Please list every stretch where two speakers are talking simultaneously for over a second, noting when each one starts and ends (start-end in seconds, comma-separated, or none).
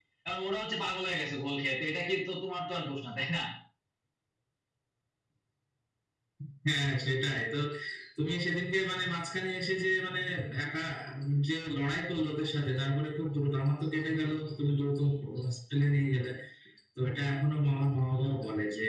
none